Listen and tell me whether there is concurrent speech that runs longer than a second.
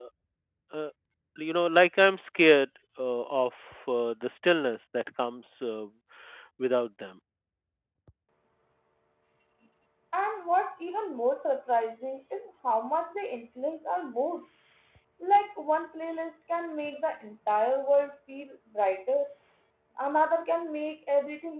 No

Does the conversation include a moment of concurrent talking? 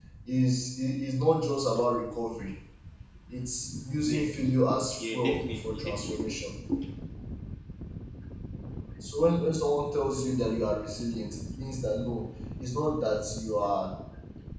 Yes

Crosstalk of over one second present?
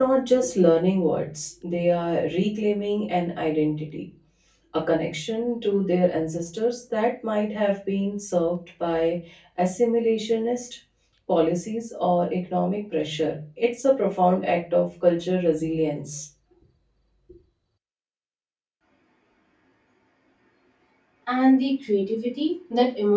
No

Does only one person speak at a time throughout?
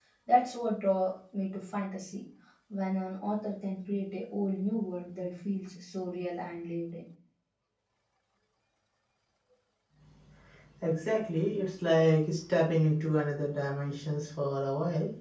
Yes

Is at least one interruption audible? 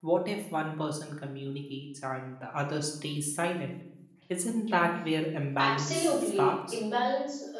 Yes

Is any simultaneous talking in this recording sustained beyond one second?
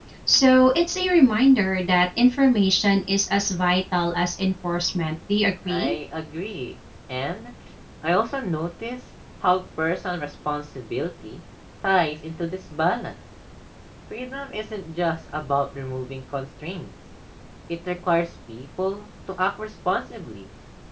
No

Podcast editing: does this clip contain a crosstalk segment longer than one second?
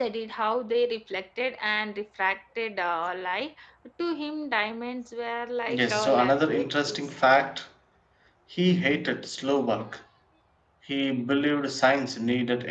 Yes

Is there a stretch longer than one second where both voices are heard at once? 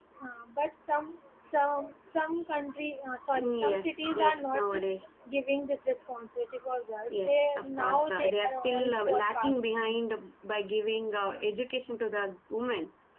Yes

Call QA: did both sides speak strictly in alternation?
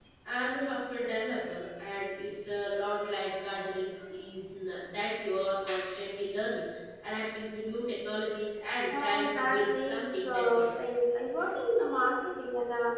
No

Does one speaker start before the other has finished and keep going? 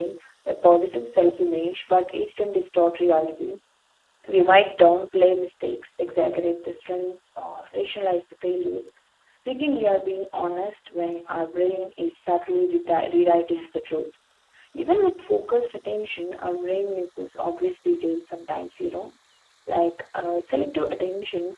No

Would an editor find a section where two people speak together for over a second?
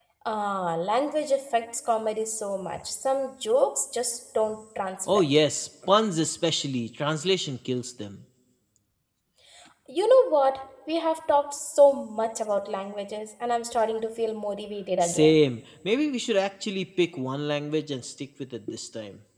No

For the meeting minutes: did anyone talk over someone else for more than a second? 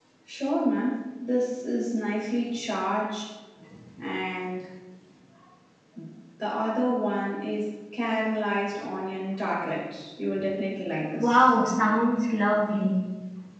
No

